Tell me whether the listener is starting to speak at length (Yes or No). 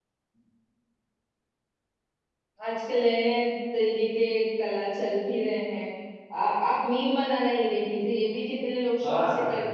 No